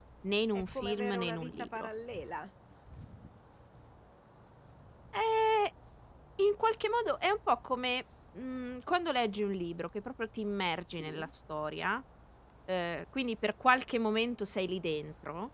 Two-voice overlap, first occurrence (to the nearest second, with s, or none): 1 s